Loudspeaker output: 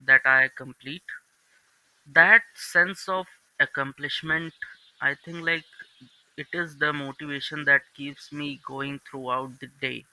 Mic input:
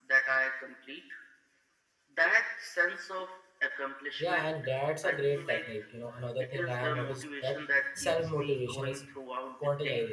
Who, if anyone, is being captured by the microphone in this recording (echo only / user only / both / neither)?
both